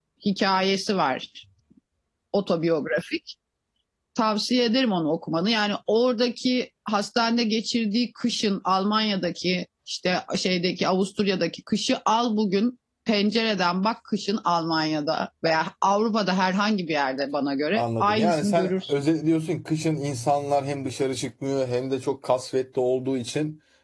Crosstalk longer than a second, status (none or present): present